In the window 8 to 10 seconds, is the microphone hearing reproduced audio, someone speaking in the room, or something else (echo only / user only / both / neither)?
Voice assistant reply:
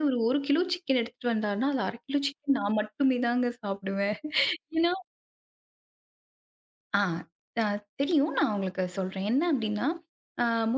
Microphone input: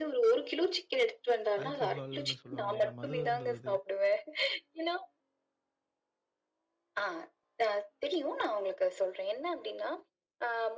echo only